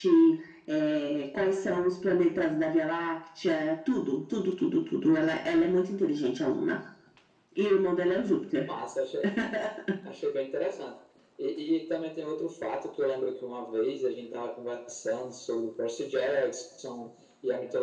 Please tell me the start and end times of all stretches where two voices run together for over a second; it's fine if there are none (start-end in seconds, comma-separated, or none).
none